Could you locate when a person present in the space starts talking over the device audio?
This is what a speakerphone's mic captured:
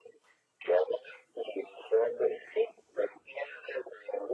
none

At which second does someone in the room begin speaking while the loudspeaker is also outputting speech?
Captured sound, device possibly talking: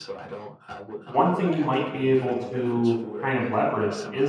1.0 s

